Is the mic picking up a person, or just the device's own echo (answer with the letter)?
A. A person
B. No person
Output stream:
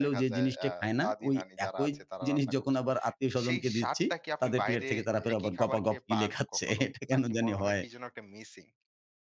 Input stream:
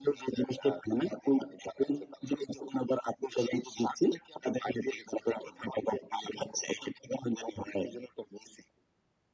B